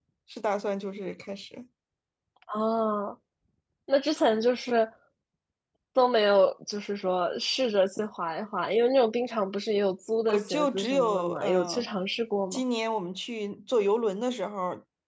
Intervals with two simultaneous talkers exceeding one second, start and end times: 10.3-11.9

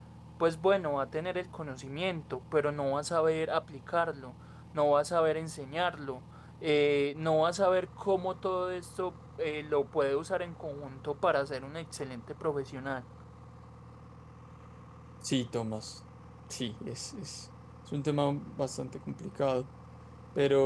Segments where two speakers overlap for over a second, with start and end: none

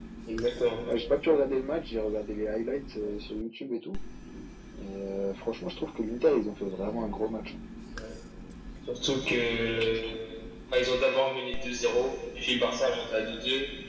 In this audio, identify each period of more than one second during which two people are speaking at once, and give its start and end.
none

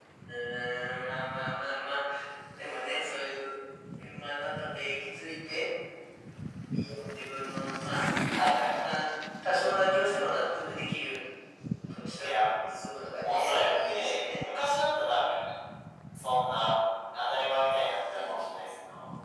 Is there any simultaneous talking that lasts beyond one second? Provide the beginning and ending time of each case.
13.2-14.5

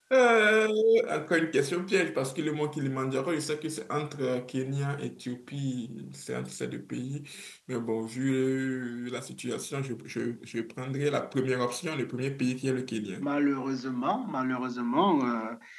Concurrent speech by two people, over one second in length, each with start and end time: none

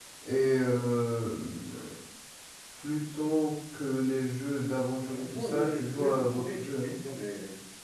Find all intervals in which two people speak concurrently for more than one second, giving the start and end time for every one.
5.0-6.9

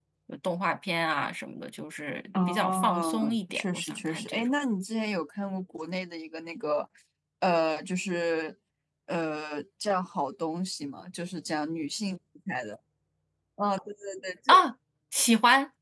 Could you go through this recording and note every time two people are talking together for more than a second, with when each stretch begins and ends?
2.5-4.5

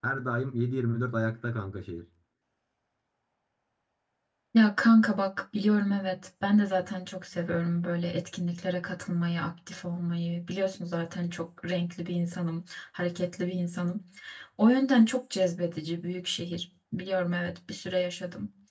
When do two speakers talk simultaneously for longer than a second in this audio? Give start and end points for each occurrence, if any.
none

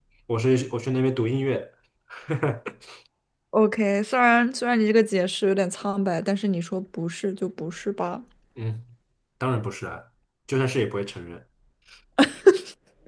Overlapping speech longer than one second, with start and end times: none

